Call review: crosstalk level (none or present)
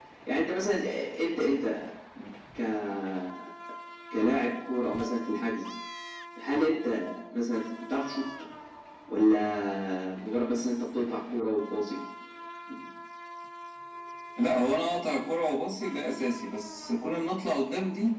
none